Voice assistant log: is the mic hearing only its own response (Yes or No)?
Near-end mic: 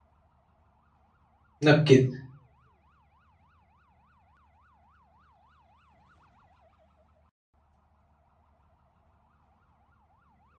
No